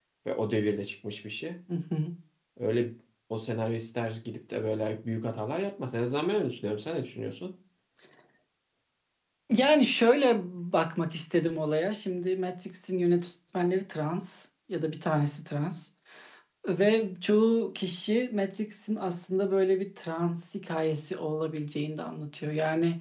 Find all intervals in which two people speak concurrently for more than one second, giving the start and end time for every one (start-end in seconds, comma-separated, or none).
none